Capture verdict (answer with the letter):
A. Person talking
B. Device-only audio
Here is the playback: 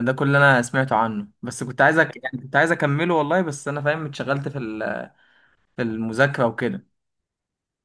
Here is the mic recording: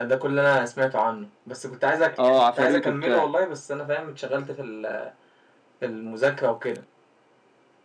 A